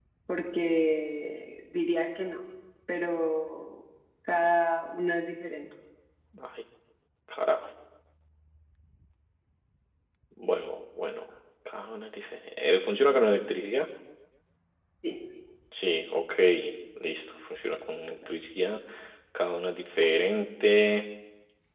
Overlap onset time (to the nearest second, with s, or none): none